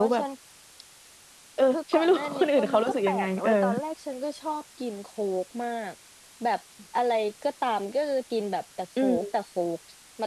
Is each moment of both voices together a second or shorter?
No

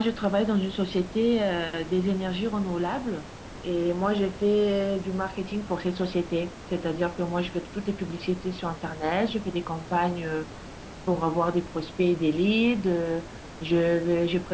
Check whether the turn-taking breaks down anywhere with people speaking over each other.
No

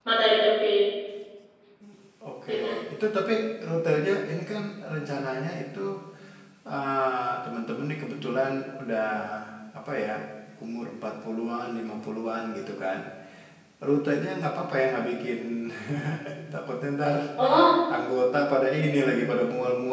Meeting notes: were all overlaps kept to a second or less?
Yes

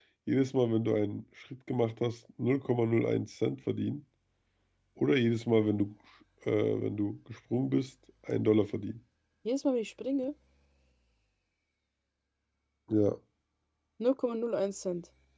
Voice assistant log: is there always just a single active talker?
Yes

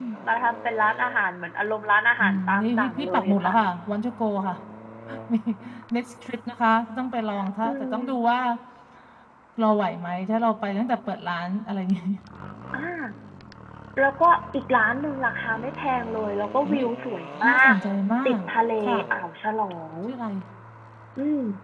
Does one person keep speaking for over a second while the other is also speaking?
Yes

